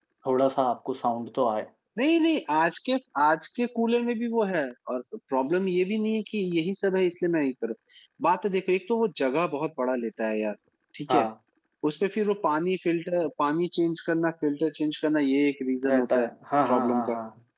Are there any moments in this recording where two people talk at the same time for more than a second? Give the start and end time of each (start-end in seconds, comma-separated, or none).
none